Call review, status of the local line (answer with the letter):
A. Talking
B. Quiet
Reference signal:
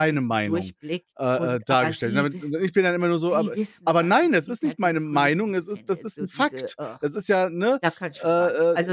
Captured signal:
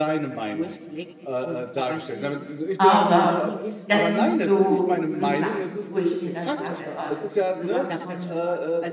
A